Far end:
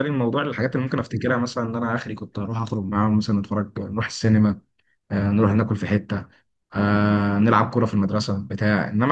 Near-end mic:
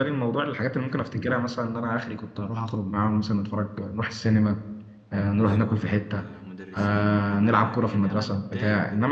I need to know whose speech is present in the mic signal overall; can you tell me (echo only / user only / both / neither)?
both